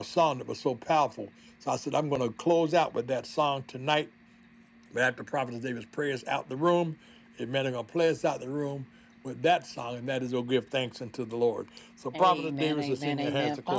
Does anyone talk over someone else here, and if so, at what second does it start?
12.1 s

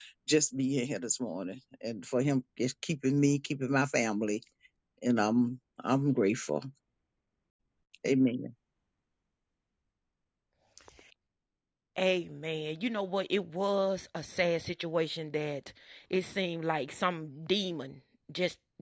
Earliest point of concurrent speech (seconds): none

